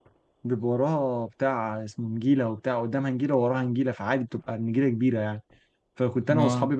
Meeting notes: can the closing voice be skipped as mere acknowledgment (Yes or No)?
Yes